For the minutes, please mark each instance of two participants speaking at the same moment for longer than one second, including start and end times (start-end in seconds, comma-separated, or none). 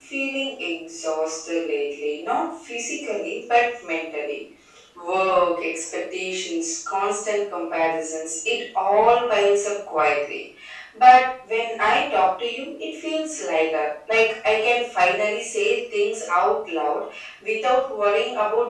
none